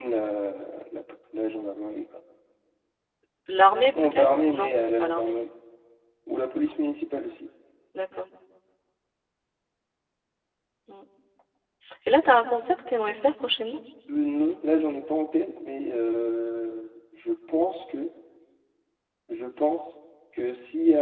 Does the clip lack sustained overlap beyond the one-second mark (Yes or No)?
No